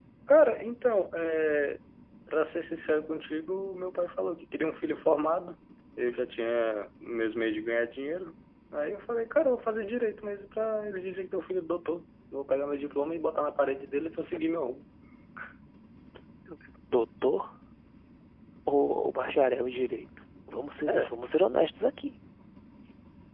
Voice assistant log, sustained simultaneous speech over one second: none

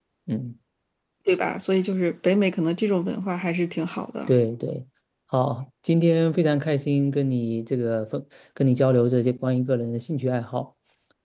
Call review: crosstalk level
none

